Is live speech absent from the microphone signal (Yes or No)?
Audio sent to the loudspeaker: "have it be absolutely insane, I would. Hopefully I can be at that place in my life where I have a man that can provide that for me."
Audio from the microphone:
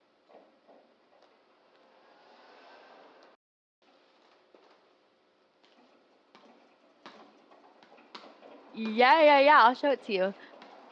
No